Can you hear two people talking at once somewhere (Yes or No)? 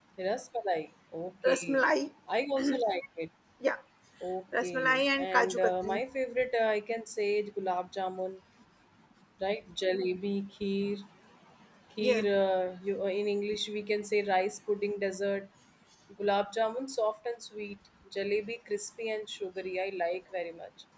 Yes